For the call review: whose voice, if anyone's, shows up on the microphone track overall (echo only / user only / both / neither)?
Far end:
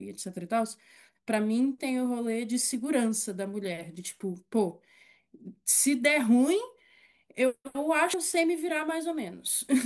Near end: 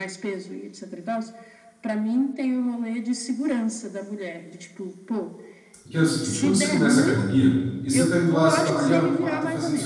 both